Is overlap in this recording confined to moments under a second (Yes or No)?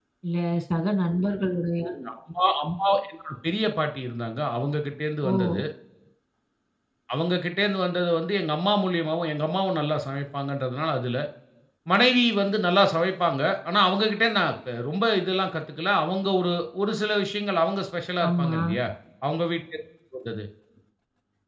Yes